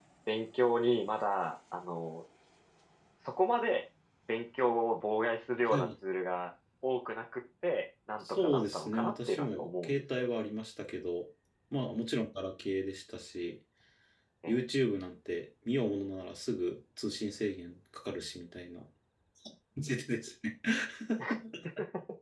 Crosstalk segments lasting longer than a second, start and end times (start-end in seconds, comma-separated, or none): 8.2-10.2